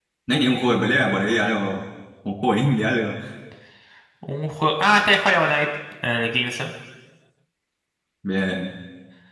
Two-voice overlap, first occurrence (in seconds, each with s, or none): none